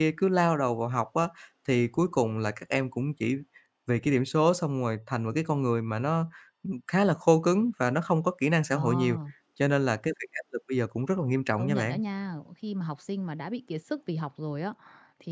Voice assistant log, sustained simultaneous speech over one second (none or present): none